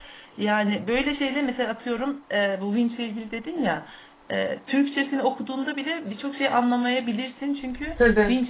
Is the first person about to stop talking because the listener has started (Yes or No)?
No